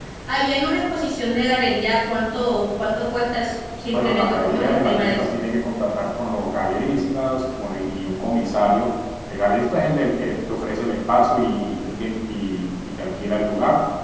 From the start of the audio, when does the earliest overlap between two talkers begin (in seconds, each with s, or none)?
3.9 s